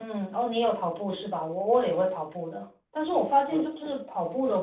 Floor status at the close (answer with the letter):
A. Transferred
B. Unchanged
B